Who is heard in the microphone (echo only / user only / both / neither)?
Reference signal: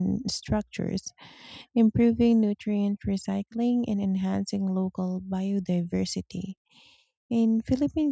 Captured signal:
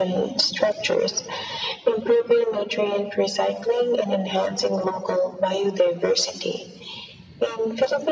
echo only